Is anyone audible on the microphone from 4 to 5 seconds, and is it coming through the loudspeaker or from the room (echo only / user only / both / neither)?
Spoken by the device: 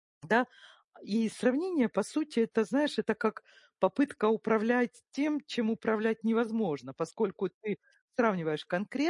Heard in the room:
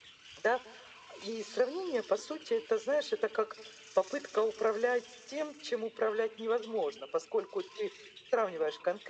echo only